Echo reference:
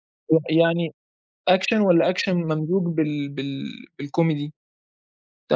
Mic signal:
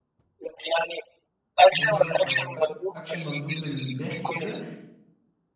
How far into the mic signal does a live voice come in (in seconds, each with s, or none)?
1.7 s